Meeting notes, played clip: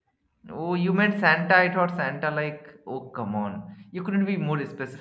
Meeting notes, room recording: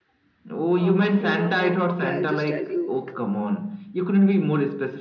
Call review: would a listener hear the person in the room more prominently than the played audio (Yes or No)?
No